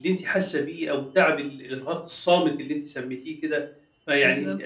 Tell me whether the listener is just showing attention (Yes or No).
Yes